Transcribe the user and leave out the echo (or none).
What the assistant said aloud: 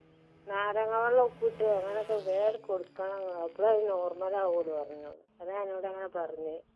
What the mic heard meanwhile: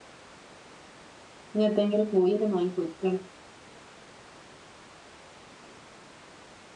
ഇനിഎന്തെങ്കിലും കോഴി വാങ്ങി പൊരിക്കണം